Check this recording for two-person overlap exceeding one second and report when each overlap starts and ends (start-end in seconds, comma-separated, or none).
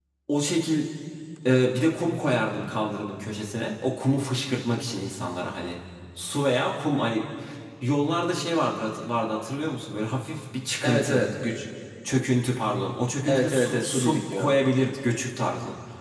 13.2-14.5